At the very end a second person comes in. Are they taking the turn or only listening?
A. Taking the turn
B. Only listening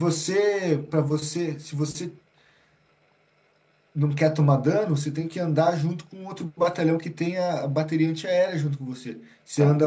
B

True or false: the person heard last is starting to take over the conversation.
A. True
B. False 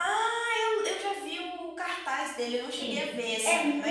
A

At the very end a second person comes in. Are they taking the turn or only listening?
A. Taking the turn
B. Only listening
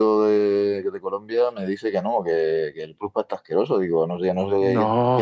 B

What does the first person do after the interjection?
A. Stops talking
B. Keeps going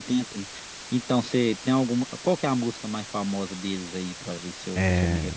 A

